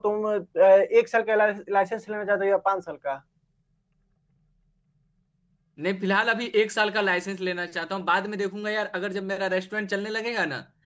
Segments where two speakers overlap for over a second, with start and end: none

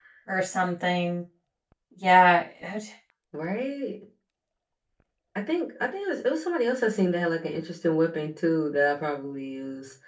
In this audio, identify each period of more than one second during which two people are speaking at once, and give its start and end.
none

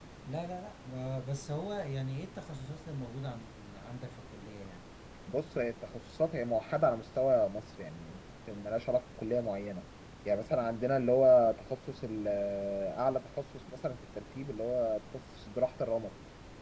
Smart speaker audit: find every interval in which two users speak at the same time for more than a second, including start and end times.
none

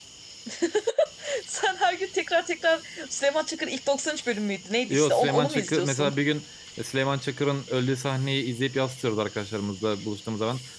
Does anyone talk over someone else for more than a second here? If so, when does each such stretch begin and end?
4.9-6.1

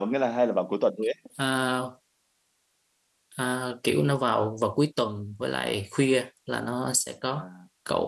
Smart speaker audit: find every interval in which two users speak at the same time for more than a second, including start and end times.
none

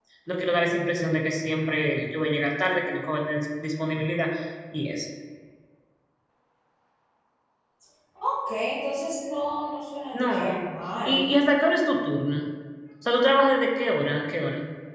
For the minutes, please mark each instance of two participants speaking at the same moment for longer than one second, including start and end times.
none

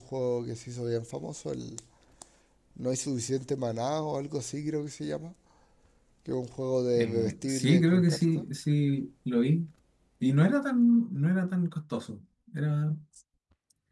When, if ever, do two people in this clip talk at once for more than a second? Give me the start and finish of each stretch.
7.0-8.4

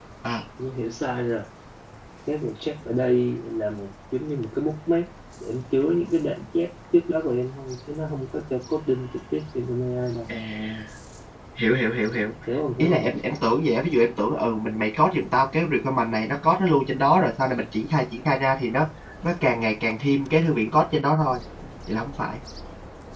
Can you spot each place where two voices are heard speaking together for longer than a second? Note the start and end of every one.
none

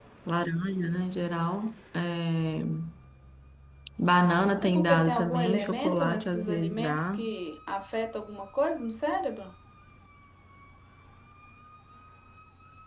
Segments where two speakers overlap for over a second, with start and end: 4.6-7.2

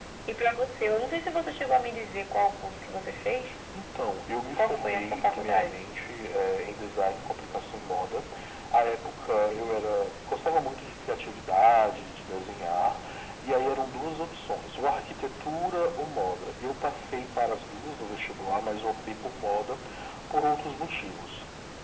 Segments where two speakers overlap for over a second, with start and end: 4.6-5.8

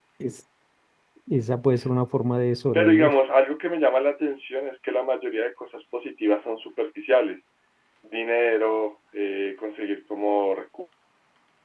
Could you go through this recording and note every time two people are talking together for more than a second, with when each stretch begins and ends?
none

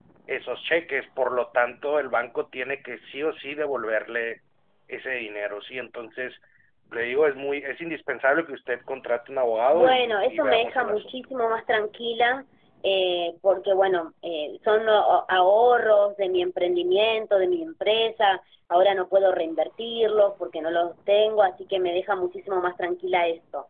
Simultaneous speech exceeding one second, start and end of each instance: 9.7-11.2

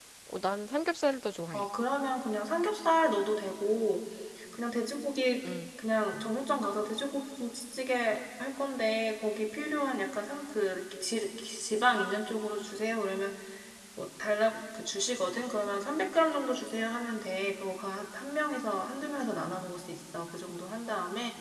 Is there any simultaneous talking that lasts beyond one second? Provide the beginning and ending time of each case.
none

